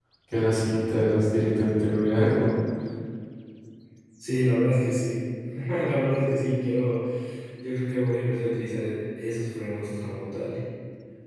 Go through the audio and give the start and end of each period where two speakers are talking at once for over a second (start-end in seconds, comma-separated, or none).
none